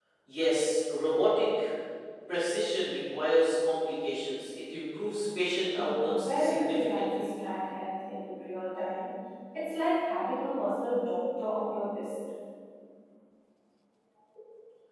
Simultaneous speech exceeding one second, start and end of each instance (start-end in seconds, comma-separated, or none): 5.8-7.3